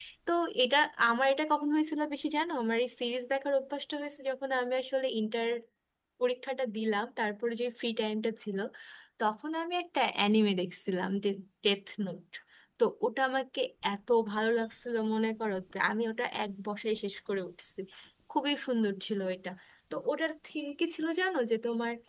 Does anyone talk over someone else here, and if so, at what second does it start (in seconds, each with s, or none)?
none